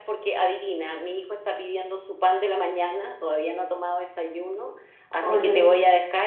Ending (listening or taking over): listening